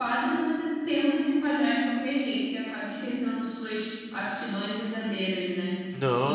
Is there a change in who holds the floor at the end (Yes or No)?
No